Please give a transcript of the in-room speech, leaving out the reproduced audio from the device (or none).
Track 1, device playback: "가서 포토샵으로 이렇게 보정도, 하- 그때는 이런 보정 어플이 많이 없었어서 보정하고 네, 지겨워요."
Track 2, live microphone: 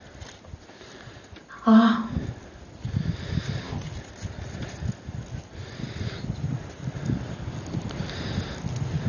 아